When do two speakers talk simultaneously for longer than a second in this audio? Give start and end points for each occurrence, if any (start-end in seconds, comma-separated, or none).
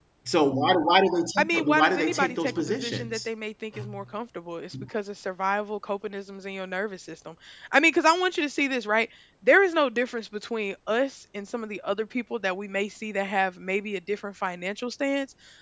1.4-3.3